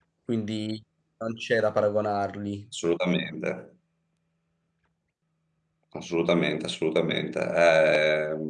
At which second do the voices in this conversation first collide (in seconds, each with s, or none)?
none